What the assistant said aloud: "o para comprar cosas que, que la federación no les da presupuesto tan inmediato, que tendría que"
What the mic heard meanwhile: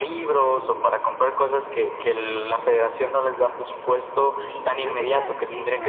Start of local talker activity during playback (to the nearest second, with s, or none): 4 s